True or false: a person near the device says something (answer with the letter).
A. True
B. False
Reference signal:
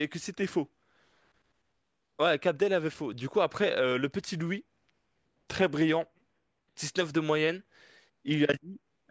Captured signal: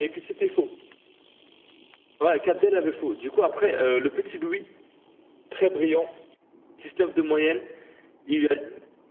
B